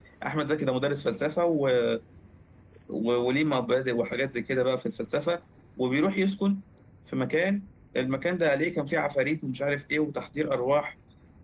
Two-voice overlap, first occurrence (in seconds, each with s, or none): none